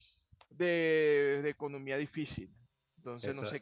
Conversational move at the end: taking over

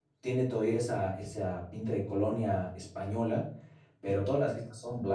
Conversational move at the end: listening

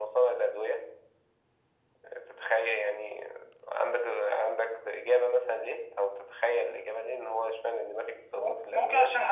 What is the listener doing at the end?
taking over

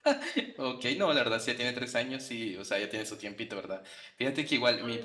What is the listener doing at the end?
listening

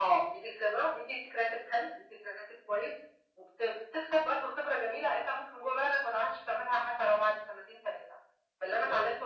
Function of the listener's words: listening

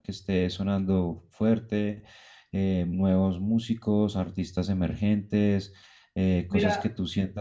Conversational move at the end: listening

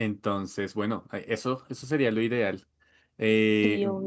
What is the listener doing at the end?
listening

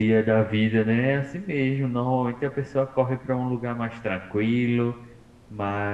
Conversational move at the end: listening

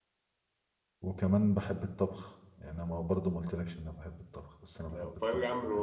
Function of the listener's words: taking over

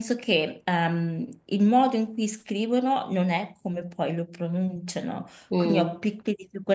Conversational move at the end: listening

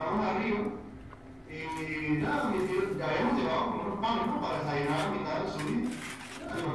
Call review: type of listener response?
listening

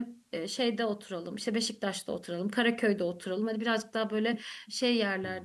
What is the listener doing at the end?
listening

